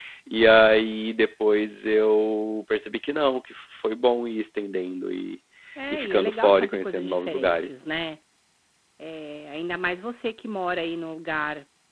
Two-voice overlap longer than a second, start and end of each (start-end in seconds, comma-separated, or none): 5.9-7.8